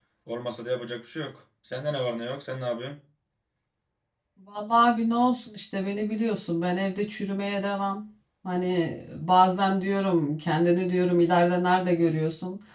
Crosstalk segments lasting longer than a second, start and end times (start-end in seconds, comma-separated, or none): none